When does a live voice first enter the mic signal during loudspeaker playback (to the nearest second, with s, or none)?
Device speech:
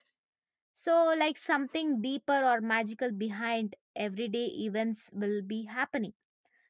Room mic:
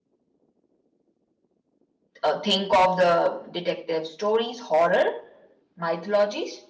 2 s